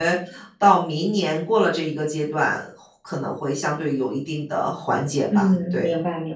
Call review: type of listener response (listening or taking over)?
taking over